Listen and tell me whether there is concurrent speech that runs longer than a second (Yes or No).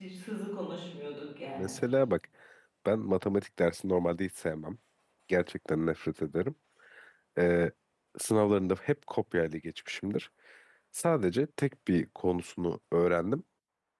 No